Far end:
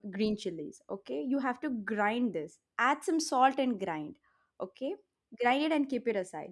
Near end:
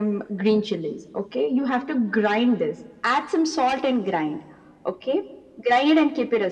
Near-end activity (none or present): none